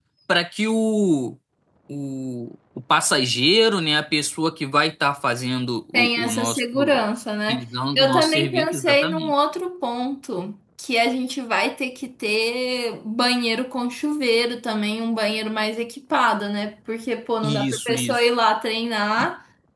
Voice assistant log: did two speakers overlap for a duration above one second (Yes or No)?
Yes